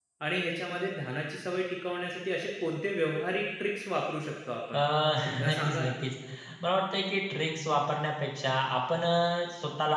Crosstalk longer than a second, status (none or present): none